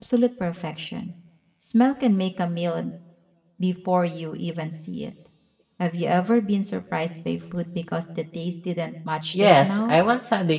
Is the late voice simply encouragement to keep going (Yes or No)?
No